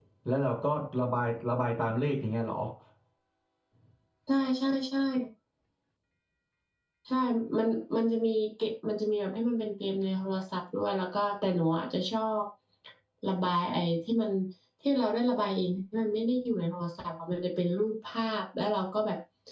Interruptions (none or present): none